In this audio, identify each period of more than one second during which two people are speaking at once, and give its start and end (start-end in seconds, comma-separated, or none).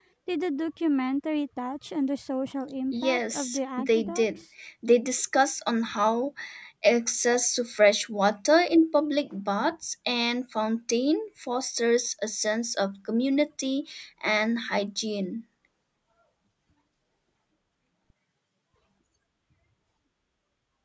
2.9-4.3